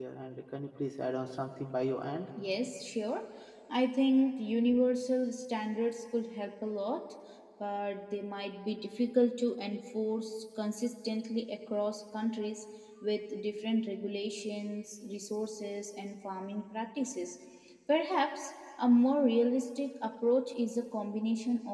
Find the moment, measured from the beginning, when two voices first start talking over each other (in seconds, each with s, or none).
none